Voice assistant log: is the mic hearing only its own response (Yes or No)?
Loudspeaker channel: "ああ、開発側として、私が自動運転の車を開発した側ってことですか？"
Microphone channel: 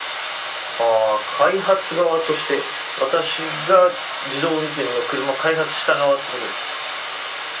Yes